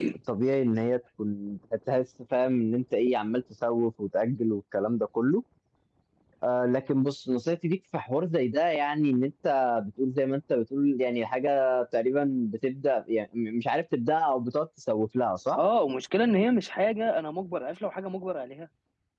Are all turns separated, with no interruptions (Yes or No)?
Yes